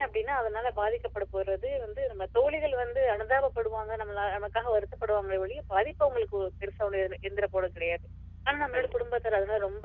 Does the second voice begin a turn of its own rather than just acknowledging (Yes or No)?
No